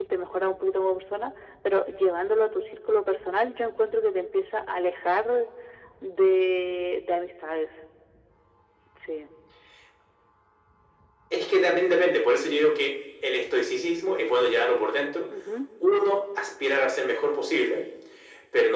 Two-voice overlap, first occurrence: none

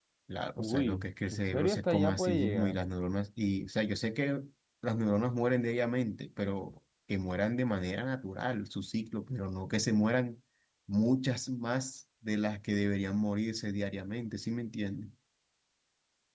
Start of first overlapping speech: 0.6 s

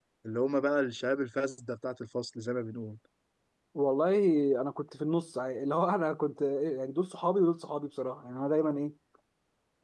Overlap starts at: none

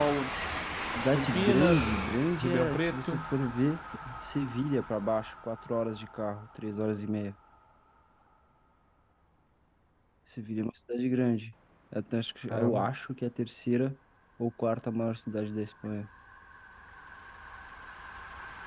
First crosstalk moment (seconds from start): 1.1 s

